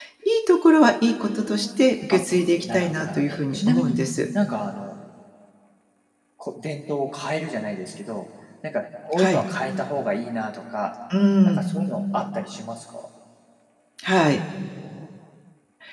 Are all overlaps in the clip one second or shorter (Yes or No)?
No